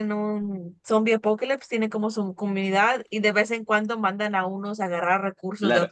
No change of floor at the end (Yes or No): No